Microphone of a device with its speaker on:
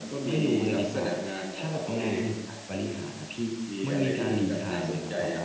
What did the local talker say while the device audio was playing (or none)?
none